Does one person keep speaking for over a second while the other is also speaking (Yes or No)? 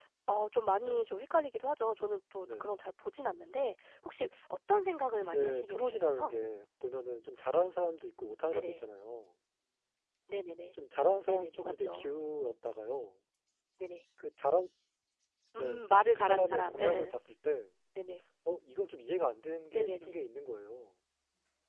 Yes